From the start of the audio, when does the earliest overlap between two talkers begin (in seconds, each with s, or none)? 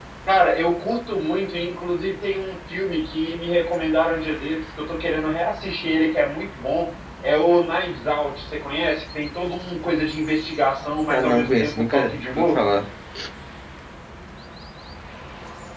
11.1 s